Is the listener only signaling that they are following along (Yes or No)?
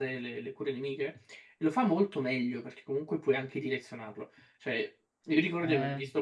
Yes